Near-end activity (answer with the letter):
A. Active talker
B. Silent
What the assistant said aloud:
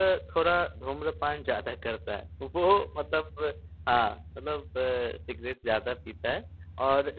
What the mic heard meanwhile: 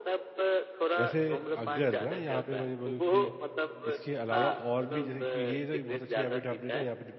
A